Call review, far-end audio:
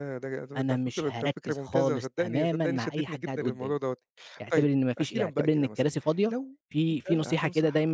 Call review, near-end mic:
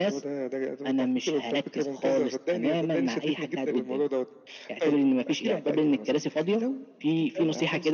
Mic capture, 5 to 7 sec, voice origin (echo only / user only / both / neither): echo only